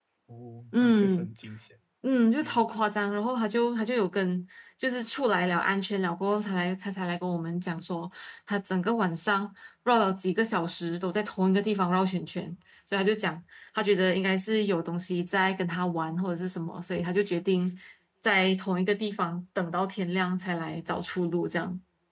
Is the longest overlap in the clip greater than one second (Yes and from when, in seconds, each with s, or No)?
No